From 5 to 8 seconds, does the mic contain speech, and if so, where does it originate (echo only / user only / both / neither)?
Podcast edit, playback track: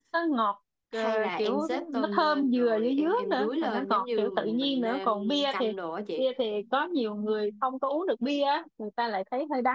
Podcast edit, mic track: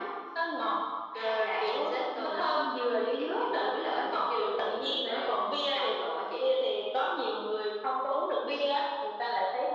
echo only